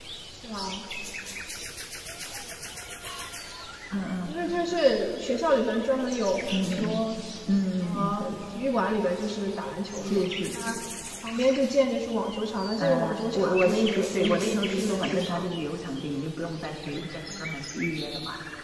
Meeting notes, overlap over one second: present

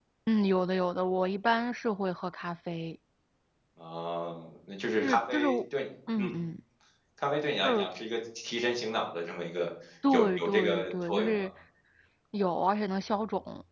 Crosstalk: present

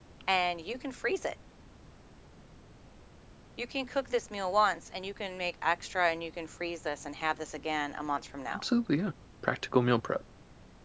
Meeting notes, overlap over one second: none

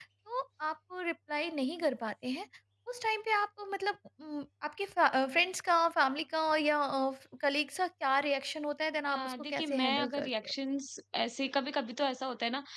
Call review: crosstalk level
present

